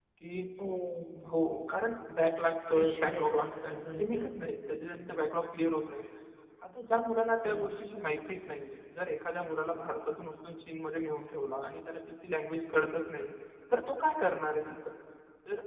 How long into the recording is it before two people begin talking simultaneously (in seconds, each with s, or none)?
2.7 s